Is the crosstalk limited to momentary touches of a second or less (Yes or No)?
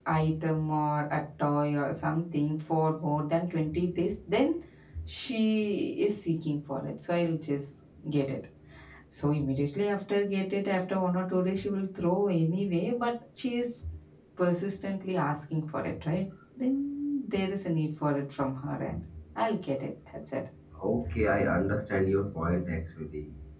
Yes